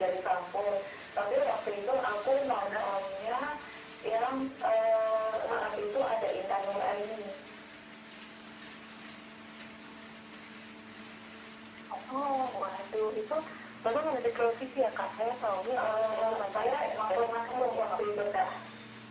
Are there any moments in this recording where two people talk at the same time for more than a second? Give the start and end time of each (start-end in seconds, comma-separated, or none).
15.8-18.5